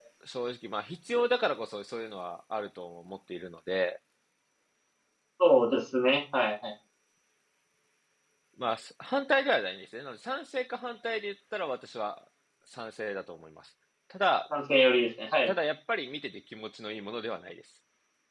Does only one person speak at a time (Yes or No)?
Yes